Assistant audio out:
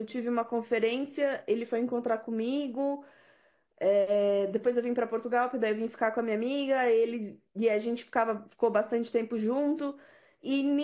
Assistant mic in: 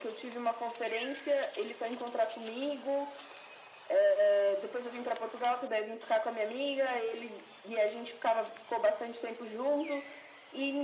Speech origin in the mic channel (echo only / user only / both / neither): echo only